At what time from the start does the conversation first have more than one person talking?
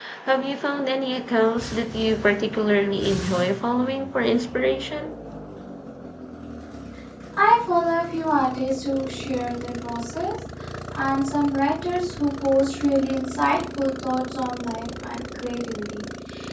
none

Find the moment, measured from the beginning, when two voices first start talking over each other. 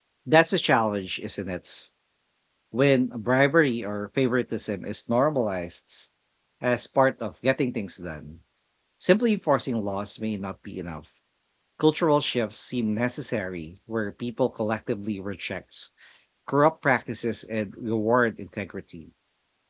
none

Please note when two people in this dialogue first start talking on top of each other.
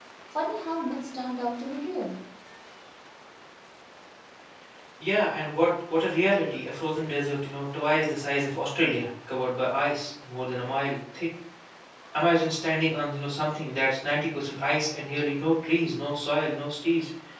none

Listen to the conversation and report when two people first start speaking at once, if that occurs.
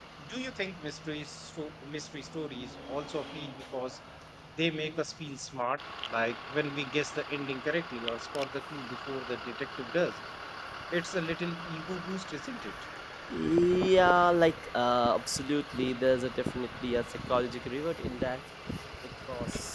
none

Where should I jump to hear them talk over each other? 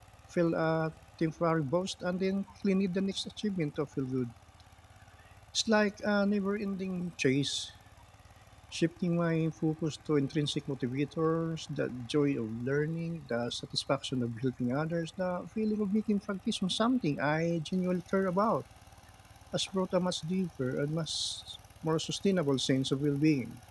none

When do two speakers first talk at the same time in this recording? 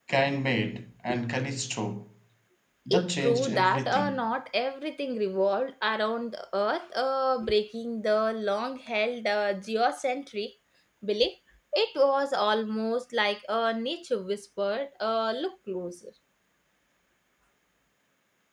2.9 s

